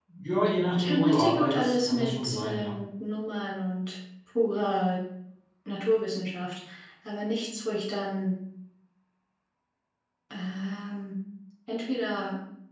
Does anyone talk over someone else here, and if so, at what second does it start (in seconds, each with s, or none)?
0.8 s